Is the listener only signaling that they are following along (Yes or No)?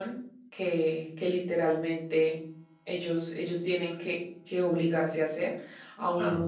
Yes